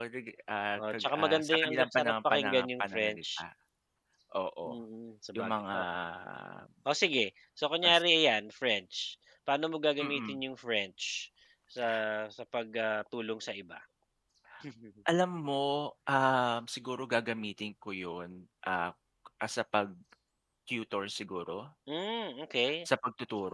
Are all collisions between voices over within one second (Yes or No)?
No